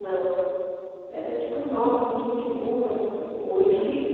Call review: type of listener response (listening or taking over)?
listening